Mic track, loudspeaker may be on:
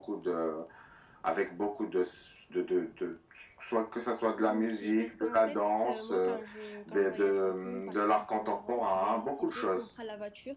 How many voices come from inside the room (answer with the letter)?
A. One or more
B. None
A